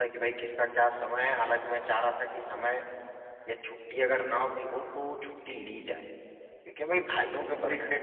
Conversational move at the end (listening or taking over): listening